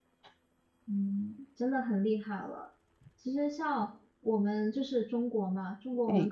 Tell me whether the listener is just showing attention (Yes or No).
Yes